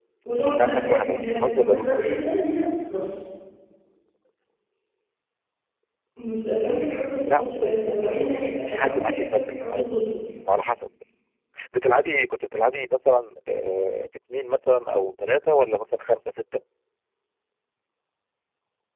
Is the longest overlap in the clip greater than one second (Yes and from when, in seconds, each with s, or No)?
Yes, from 0.6 s